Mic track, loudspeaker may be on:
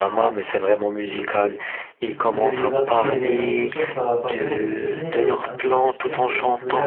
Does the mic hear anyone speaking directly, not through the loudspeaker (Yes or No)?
Yes